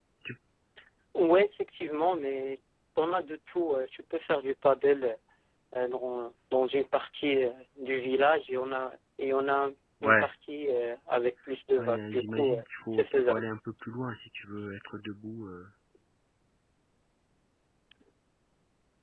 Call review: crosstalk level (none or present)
present